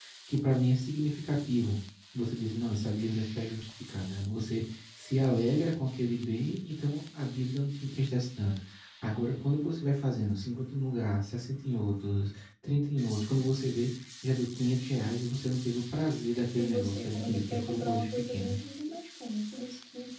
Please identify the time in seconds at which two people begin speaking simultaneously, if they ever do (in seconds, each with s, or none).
16.6 s